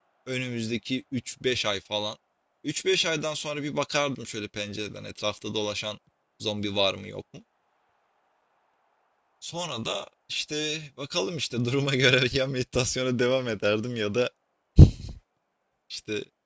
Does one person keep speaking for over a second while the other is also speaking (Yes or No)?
No